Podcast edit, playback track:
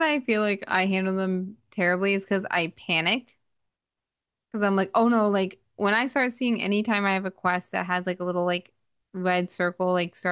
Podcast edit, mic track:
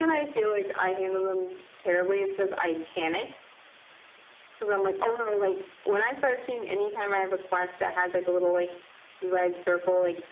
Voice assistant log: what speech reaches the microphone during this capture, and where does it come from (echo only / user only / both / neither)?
echo only